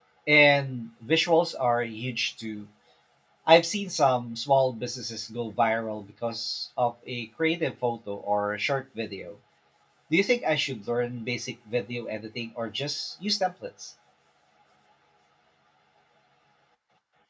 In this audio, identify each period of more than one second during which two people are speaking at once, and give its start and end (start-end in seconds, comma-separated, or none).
none